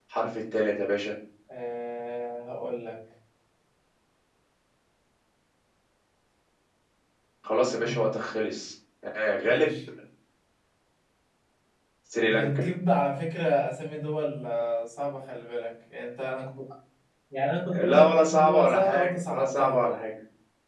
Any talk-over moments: Yes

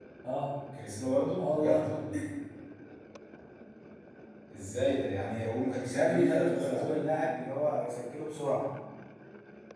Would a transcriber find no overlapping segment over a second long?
No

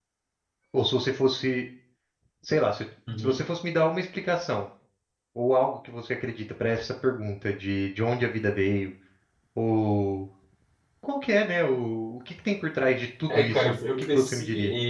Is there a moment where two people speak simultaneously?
Yes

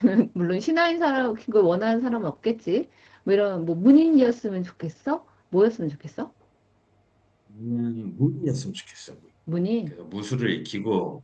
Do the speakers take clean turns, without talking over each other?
Yes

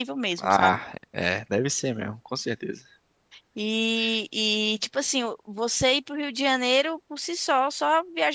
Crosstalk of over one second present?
No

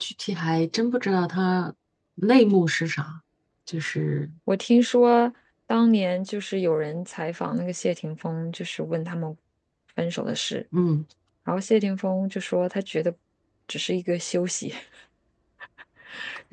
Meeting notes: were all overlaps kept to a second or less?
Yes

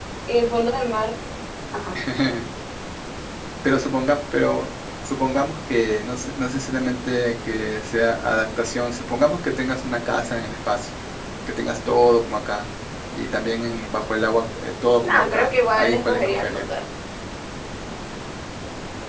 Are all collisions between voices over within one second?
No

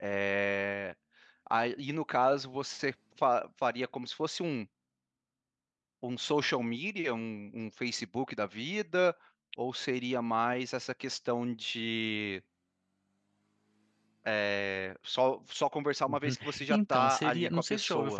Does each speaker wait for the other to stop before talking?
No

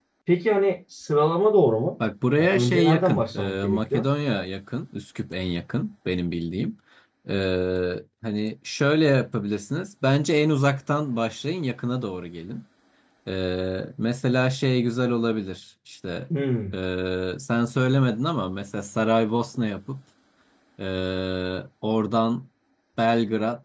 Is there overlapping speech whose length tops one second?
Yes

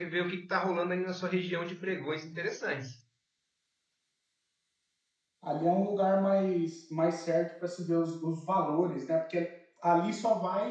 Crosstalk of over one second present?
No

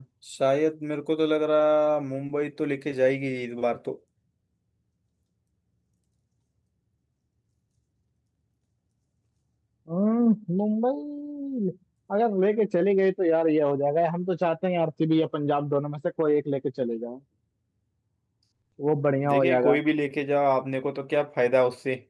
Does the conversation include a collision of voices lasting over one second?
No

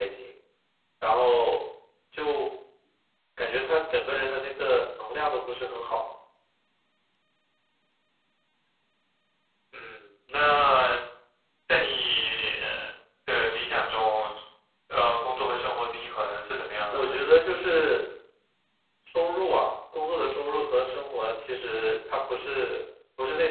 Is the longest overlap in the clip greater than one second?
No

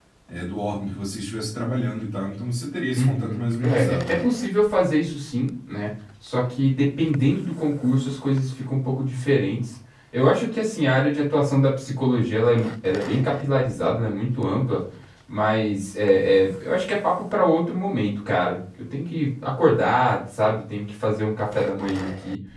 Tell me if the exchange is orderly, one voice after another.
No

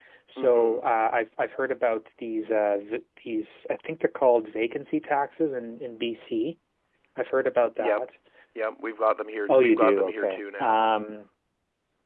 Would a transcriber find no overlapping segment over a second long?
No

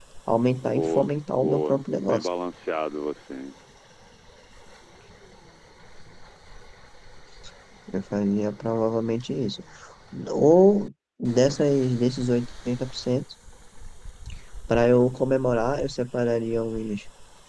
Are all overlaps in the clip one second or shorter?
No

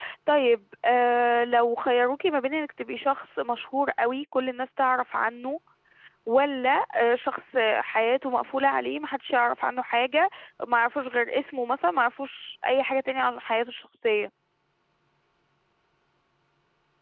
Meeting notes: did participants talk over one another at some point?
No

